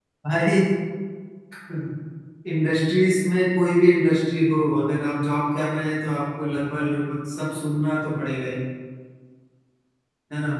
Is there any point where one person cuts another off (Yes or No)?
No